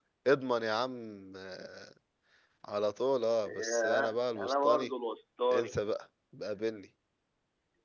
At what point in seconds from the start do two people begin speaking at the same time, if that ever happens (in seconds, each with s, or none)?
3.6 s